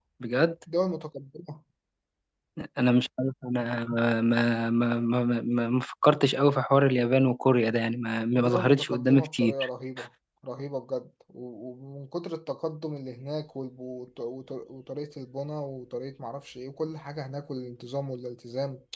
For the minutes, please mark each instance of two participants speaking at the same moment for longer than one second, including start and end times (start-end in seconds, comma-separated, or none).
8.3-9.7